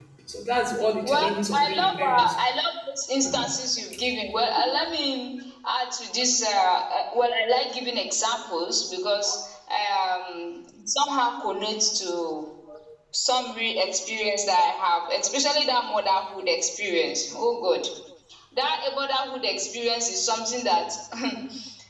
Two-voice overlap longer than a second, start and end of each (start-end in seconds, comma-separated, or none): 1.0-2.3